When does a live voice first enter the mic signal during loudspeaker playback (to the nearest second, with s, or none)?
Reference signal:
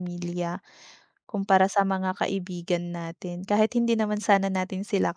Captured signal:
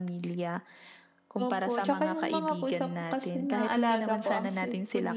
1 s